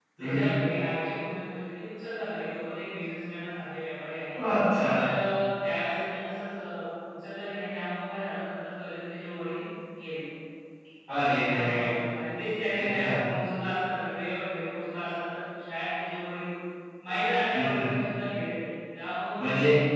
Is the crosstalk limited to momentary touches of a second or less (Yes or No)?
Yes